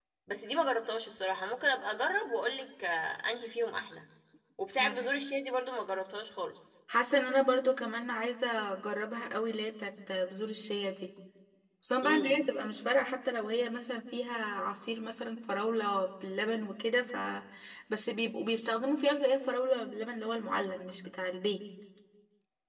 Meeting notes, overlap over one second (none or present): none